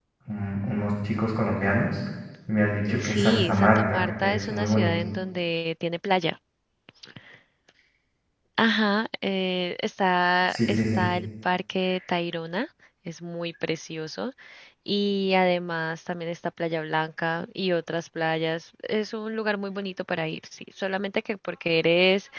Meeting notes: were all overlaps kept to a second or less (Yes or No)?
No